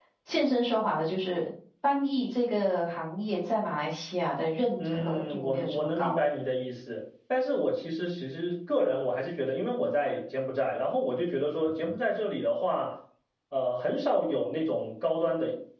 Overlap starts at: 4.8 s

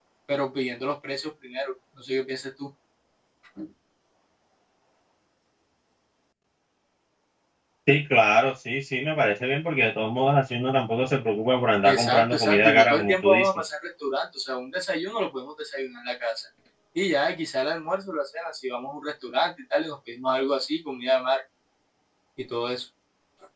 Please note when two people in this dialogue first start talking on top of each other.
11.8 s

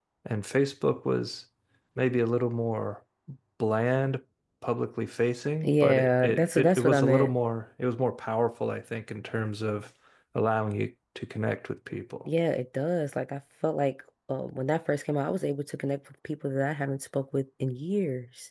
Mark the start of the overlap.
5.6 s

